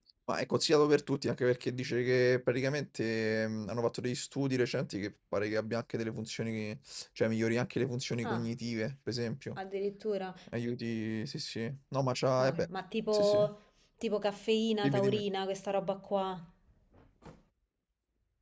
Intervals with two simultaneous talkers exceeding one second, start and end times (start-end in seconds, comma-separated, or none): none